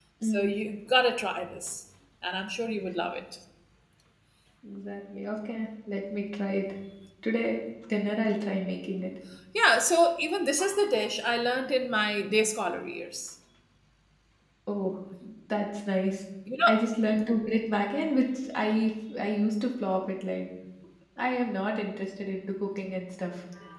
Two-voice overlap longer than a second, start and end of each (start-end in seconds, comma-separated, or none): none